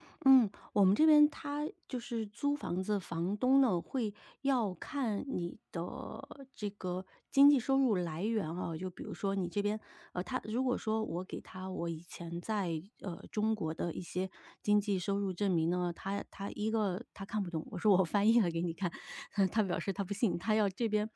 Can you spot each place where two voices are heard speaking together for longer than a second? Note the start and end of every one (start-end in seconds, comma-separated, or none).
none